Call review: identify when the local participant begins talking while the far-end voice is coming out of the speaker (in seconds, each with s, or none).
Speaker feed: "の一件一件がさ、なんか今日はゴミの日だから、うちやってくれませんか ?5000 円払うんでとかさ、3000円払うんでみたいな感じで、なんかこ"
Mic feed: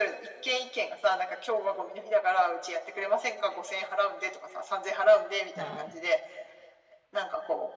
5.6 s